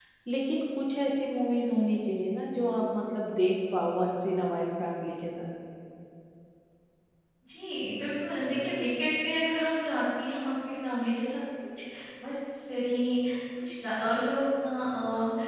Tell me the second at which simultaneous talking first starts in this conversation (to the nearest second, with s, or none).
none